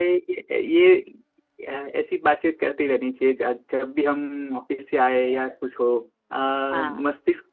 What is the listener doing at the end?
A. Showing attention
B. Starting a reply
A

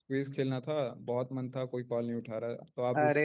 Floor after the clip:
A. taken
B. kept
A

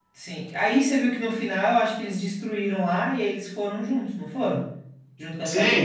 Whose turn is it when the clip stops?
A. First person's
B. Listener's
B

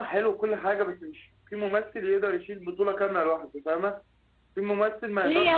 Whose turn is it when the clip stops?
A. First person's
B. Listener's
B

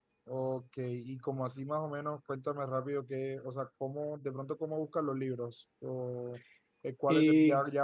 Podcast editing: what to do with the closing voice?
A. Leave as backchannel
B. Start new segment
A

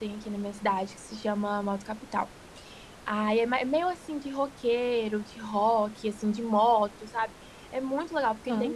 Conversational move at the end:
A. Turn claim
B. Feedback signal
B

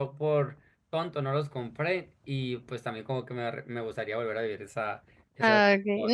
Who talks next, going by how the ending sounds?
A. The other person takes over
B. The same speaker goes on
A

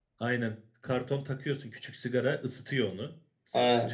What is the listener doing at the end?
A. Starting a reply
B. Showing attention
A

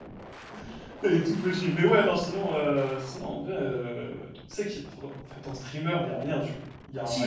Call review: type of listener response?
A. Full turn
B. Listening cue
A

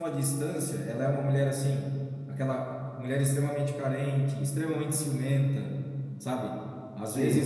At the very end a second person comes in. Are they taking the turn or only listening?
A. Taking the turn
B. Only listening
B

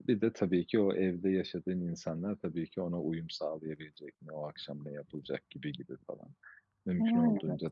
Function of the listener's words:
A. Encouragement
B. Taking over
A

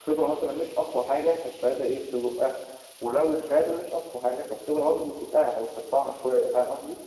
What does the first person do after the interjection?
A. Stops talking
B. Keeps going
A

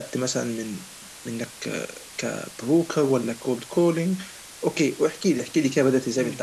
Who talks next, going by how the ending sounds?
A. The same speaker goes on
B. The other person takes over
B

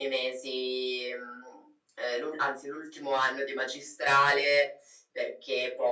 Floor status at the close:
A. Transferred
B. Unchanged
B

